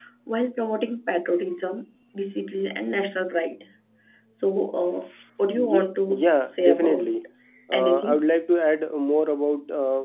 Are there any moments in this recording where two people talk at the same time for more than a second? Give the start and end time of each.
5.5-7.1

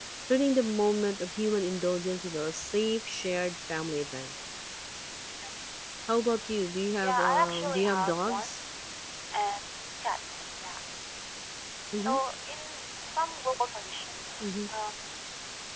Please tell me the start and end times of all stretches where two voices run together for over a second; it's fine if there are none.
7.0-8.5

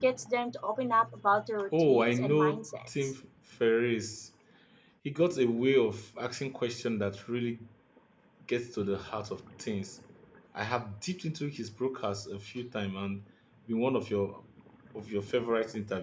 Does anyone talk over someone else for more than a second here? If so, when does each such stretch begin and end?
1.8-3.1

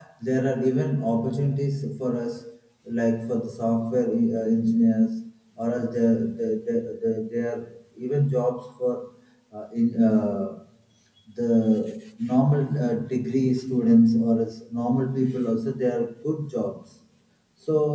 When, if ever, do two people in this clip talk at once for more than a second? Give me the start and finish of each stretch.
none

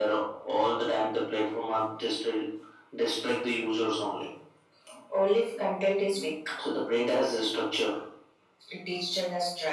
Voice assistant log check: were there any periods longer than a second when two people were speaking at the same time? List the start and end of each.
none

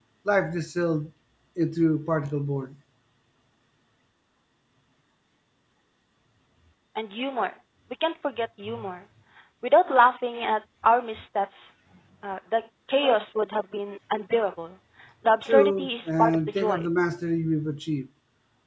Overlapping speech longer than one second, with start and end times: 15.4-16.9

